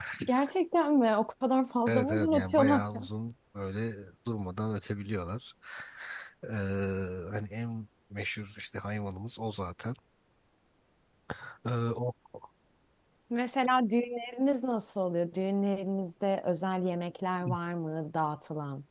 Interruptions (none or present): present